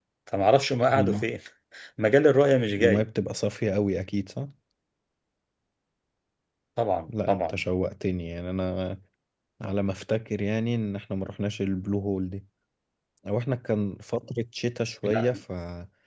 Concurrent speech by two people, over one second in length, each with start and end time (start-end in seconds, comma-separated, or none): none